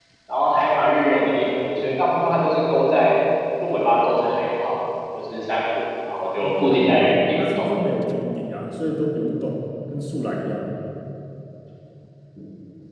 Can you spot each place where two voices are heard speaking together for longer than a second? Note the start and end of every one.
6.4-7.7

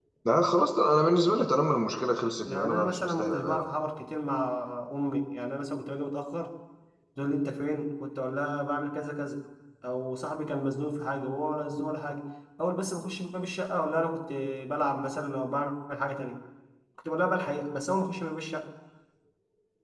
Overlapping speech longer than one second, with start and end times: 2.5-3.9

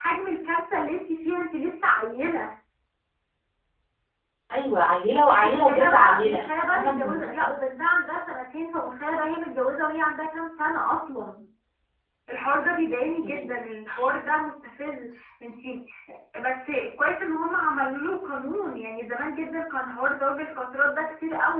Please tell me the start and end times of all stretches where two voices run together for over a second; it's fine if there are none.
5.3-7.5

